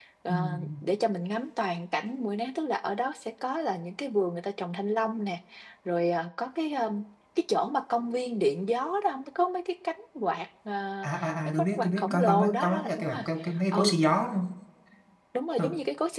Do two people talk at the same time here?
Yes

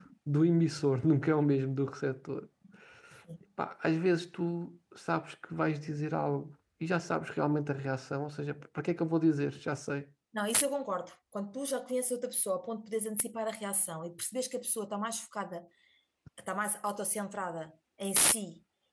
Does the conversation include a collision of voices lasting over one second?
No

